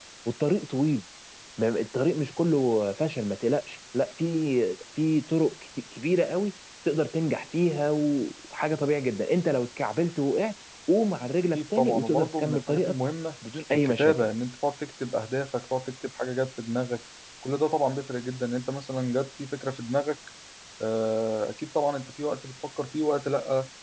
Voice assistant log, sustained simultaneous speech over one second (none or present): present